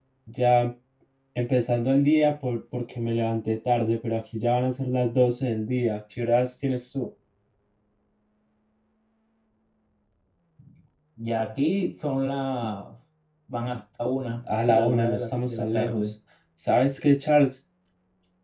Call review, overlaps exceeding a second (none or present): present